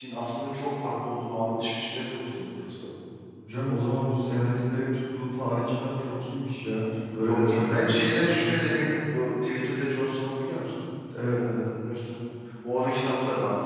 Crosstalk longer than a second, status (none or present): present